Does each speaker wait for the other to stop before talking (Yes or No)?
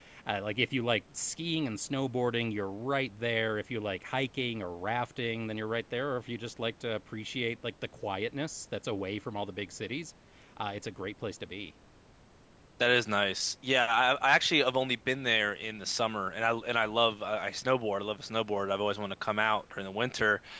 Yes